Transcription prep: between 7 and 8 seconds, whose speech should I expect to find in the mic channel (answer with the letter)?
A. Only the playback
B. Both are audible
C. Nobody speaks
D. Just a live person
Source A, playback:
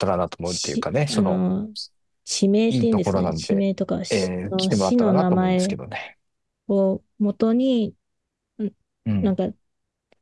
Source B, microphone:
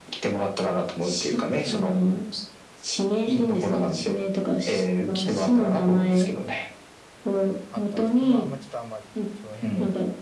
B